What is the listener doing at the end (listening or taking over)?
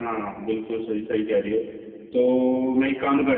listening